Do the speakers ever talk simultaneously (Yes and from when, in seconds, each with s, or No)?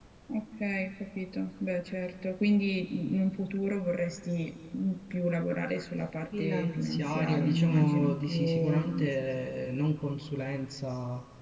Yes, from 6.3 s